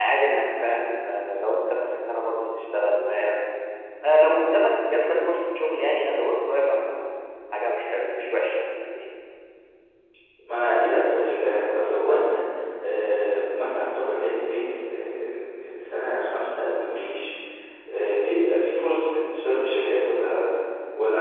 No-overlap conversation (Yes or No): Yes